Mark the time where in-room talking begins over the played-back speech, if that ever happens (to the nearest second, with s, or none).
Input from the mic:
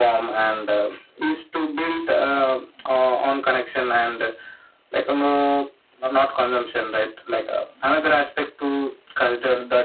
none